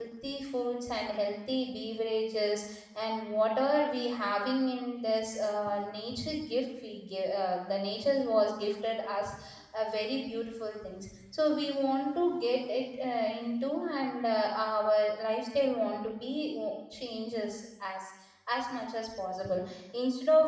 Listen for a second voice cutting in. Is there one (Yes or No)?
No